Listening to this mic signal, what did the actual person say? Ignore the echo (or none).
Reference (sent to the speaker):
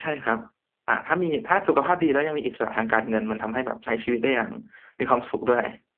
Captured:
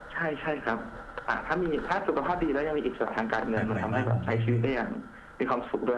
แปลกใหม่มากผมไม่ไม่